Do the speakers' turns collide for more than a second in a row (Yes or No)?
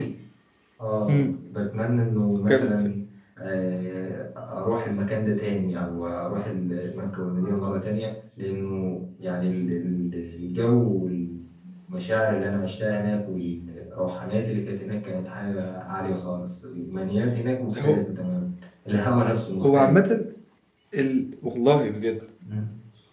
No